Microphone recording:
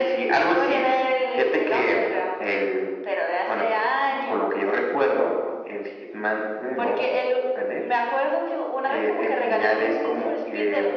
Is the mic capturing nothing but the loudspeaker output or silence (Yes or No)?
Yes